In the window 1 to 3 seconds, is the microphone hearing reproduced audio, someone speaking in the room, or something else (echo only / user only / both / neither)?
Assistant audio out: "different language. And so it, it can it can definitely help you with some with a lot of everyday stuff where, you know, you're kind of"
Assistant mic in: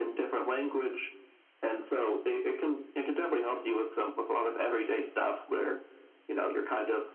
echo only